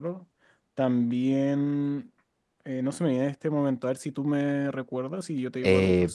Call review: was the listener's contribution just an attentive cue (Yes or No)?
No